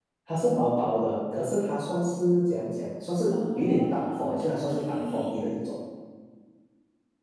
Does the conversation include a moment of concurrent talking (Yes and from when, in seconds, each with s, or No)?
Yes, from 3.3 s